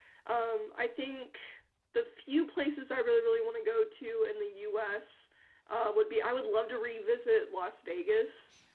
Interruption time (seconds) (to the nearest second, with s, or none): none